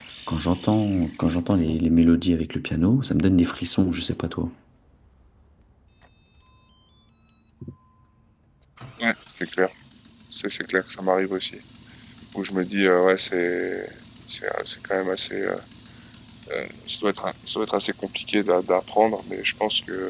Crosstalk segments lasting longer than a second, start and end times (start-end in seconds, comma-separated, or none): none